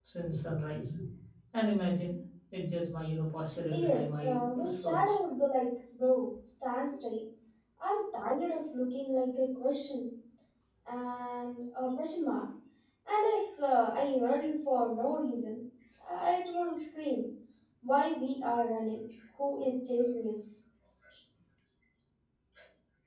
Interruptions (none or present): present